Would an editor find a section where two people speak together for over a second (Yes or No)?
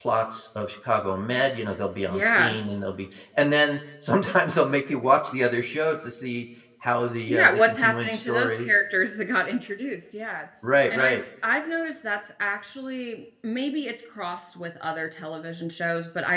Yes